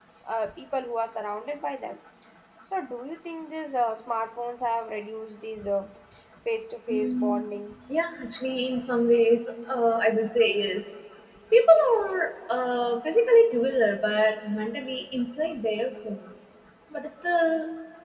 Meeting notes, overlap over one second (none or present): none